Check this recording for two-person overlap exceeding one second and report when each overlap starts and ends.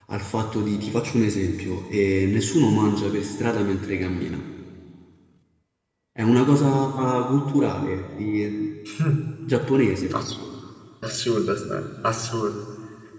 none

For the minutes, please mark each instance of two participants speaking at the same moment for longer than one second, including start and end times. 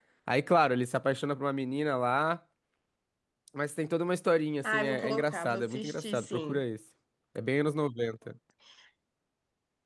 4.6-6.6

